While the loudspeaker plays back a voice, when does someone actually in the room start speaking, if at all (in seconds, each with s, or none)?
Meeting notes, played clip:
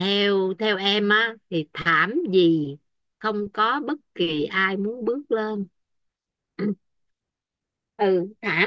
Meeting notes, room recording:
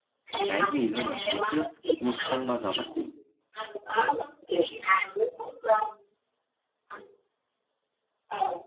0.4 s